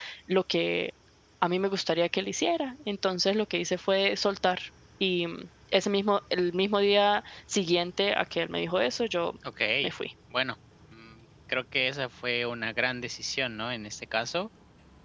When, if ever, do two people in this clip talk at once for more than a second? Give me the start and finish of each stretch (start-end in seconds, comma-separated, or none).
none